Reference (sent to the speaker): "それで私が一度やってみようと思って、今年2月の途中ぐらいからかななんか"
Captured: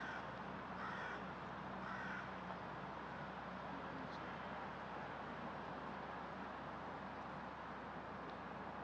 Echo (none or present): none